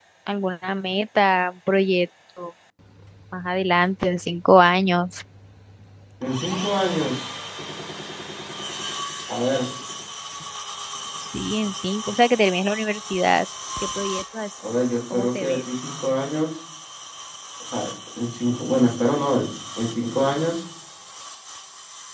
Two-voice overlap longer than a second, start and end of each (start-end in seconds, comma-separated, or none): none